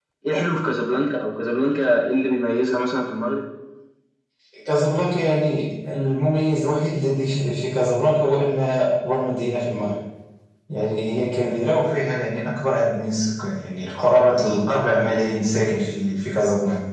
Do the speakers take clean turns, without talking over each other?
Yes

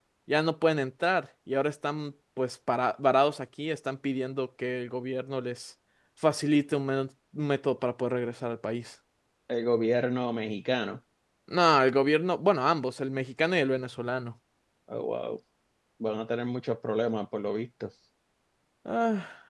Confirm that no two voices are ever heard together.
Yes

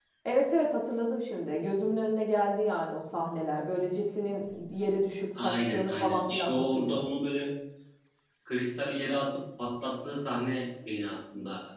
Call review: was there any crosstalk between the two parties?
Yes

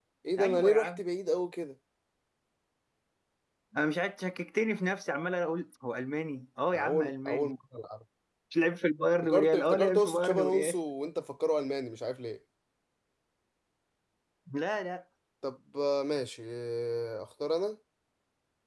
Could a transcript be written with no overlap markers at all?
No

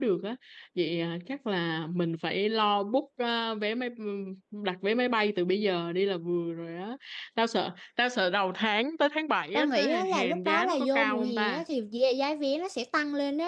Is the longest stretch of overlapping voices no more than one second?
No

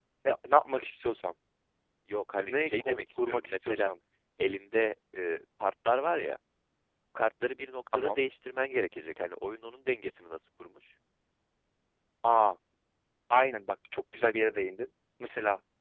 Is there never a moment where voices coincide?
No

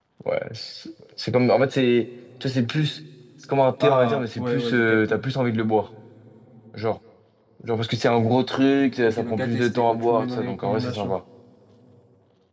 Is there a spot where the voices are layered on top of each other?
Yes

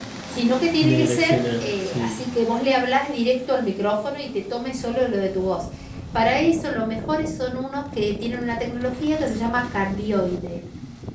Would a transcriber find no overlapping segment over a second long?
No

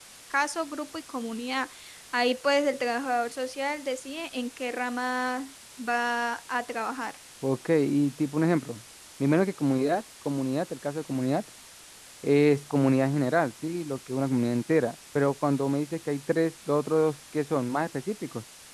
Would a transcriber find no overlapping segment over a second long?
Yes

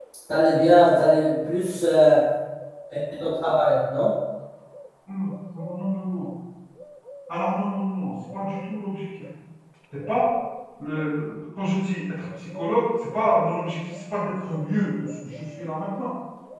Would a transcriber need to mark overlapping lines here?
No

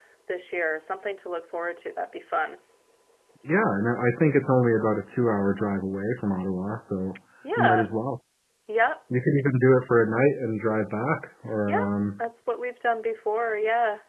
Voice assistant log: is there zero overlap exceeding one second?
Yes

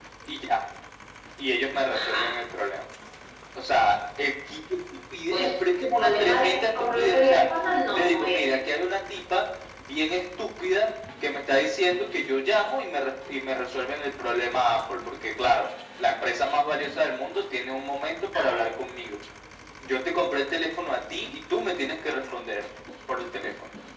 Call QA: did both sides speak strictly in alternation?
No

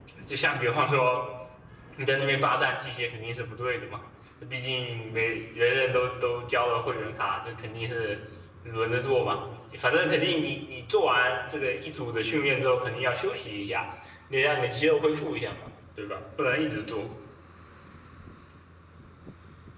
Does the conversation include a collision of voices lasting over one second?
No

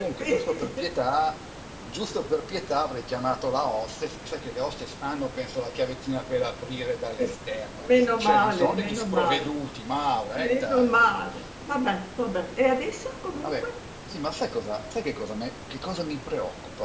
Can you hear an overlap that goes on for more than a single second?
Yes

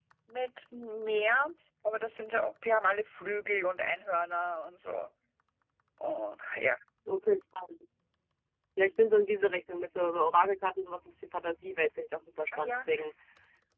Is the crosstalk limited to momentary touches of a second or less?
Yes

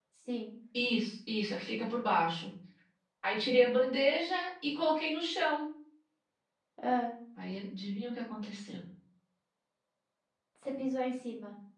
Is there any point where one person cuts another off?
No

